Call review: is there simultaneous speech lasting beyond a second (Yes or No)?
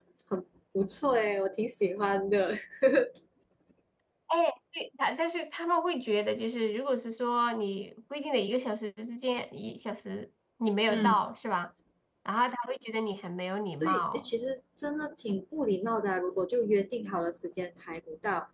No